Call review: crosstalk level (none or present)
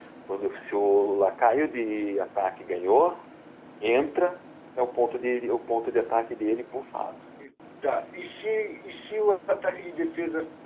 none